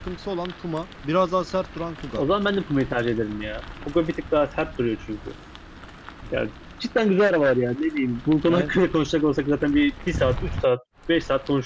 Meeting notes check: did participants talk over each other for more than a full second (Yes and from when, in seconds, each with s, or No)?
No